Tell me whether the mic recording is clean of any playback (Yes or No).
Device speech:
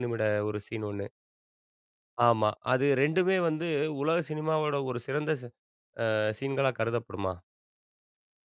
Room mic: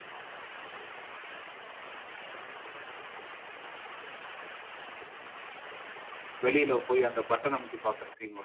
Yes